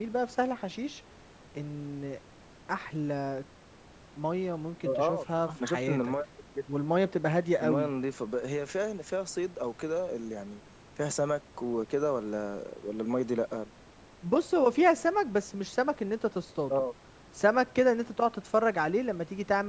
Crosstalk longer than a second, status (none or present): present